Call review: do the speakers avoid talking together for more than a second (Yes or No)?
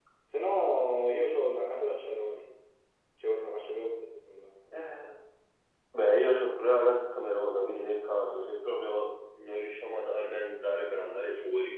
Yes